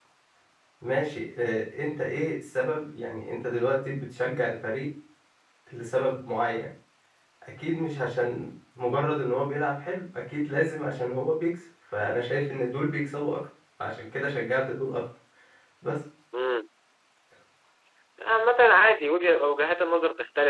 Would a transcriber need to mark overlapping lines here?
No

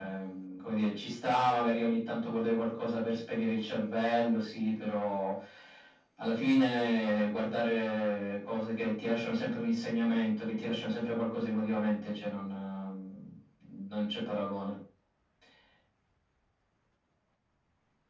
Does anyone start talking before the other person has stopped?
No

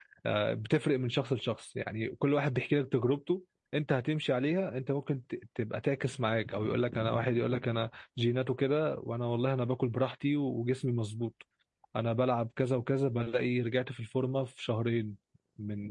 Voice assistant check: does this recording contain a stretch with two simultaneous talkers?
No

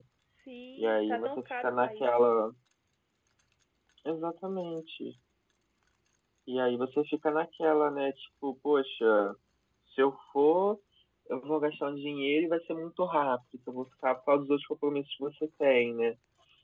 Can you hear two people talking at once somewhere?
Yes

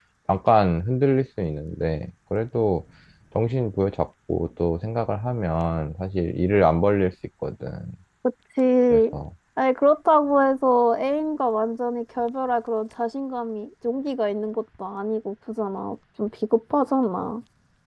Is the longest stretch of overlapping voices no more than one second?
Yes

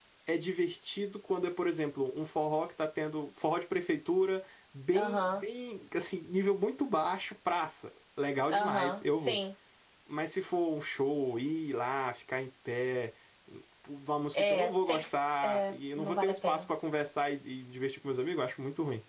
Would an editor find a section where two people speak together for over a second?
Yes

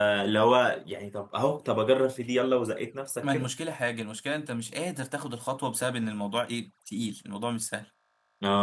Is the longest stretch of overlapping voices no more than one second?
Yes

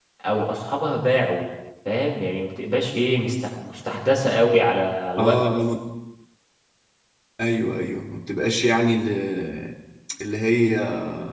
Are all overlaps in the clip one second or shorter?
Yes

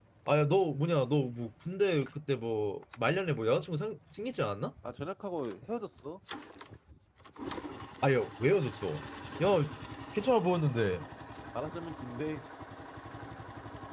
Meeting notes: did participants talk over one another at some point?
No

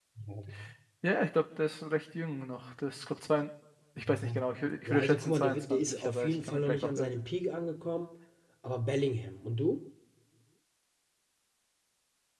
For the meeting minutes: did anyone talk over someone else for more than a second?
Yes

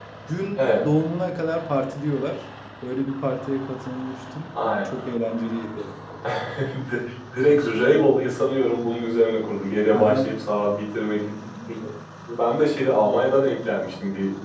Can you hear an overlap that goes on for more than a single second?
No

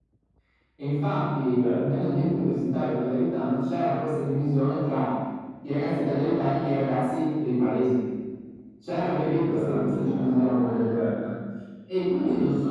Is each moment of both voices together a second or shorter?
No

